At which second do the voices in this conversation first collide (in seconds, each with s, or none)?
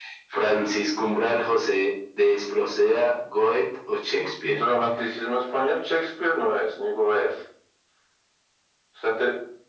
none